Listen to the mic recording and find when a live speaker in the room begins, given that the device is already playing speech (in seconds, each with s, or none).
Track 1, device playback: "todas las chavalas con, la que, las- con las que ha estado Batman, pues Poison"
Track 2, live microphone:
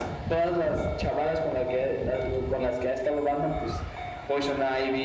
none